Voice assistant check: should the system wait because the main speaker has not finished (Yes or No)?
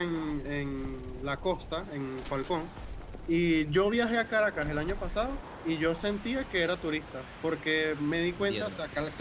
Yes